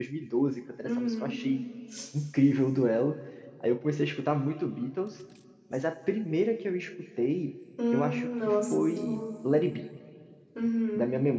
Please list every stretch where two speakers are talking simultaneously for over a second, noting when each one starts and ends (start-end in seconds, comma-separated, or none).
7.9-9.2